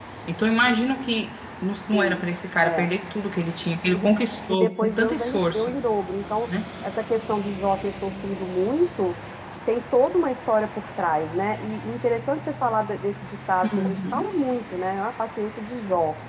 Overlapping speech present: Yes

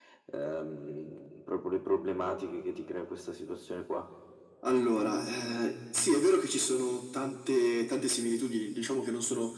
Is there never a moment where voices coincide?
Yes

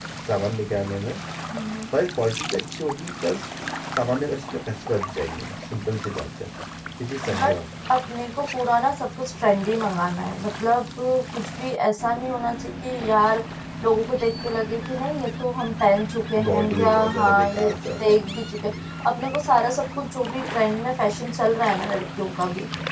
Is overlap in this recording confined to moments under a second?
No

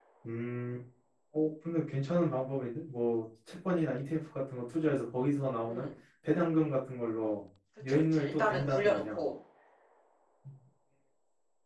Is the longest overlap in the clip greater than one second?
Yes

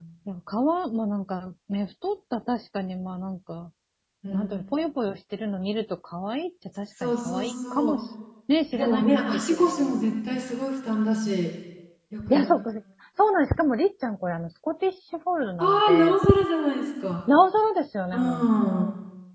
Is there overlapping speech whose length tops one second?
Yes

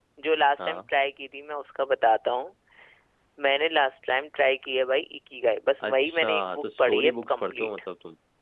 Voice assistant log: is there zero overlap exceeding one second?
No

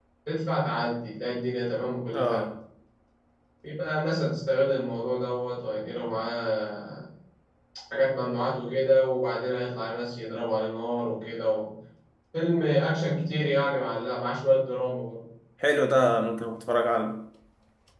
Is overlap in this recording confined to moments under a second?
Yes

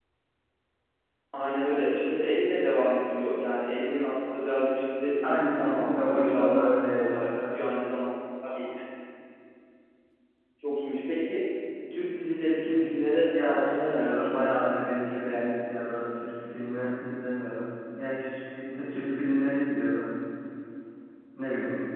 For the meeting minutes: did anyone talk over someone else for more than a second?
Yes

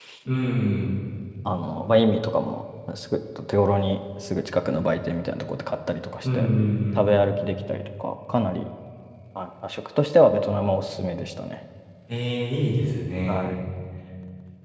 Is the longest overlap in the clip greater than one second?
No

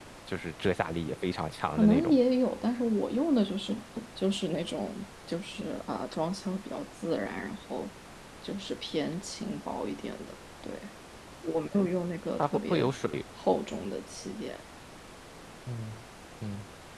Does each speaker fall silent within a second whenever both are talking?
Yes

